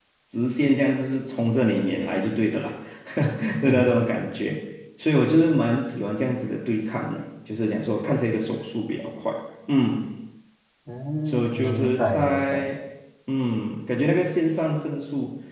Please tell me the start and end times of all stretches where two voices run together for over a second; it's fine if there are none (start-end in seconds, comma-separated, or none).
11.3-12.6